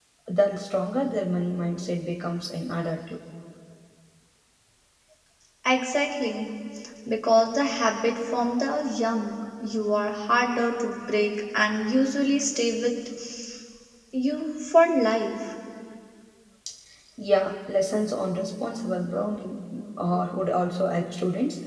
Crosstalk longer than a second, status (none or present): none